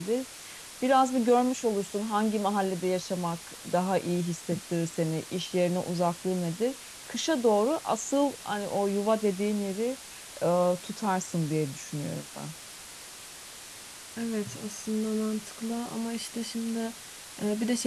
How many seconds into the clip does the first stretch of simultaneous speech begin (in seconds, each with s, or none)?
none